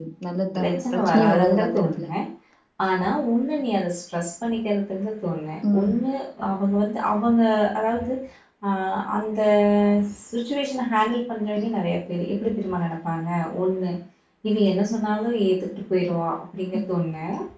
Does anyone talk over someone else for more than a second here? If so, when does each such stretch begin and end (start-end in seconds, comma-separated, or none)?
0.6-2.1